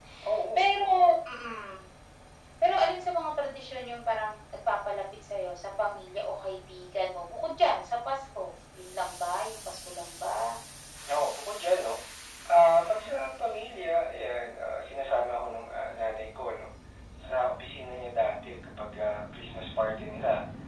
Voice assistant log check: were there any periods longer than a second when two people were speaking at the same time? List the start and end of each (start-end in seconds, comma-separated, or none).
none